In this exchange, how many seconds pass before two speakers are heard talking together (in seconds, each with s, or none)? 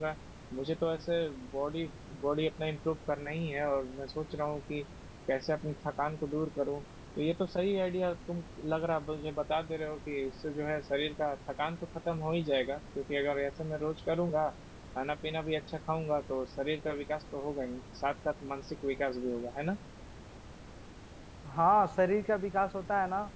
none